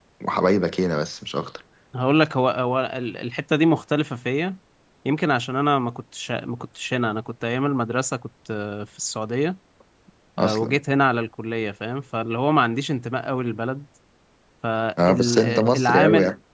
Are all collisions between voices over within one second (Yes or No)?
No